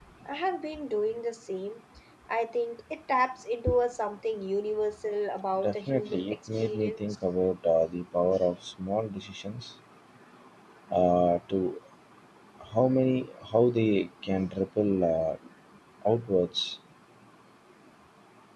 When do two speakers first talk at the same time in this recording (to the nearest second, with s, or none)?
6 s